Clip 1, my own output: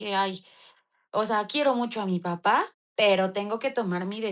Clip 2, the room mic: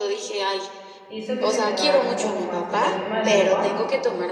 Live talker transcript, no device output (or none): hizo que te quedaras un poco más, o sea, el tema de tu papá?